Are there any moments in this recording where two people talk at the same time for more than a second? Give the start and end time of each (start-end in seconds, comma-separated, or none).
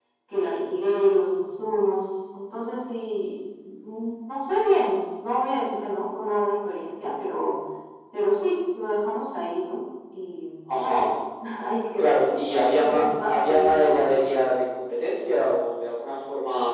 12.7-14.2